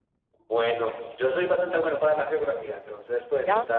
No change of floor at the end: Yes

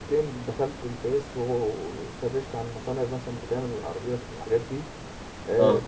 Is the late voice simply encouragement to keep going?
Yes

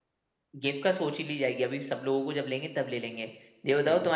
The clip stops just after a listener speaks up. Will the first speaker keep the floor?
Yes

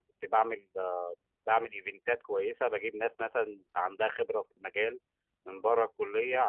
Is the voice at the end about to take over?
No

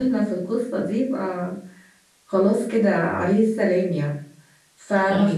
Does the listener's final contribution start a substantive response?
No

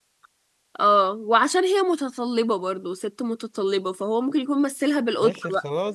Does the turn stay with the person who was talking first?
No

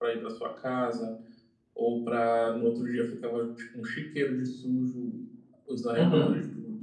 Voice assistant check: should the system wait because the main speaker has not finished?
Yes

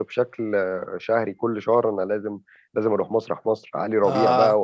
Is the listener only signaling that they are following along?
Yes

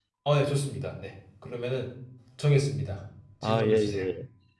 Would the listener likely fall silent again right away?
No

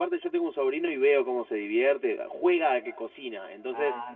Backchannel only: Yes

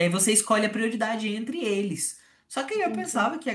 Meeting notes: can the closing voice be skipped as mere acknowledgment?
Yes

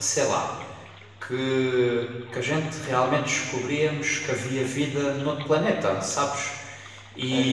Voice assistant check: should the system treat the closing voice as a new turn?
No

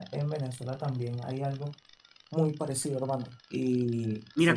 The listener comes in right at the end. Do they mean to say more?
Yes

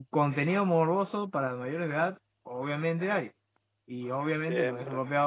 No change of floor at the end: Yes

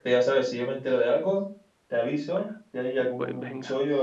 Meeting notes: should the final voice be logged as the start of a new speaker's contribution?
No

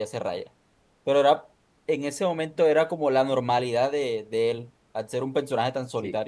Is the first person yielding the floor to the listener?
Yes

